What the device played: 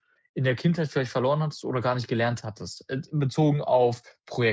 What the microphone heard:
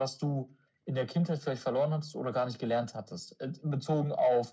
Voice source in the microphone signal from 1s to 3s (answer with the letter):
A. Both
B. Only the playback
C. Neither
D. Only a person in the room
B